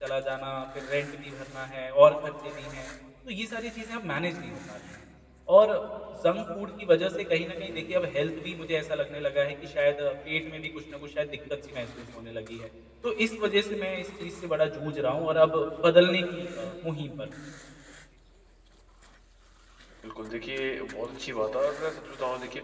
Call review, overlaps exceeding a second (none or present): none